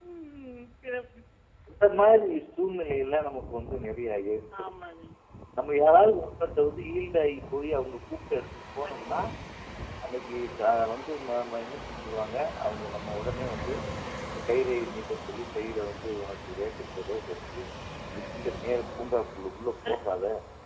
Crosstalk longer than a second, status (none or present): none